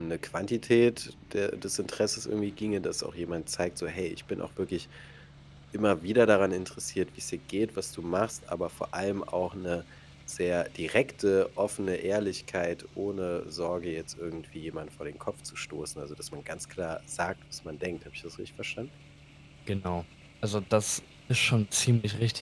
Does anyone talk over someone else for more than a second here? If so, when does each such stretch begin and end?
none

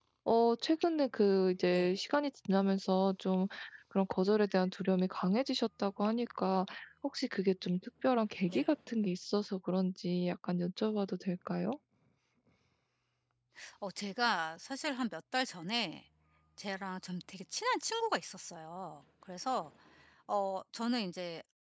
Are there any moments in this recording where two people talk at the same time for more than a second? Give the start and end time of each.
none

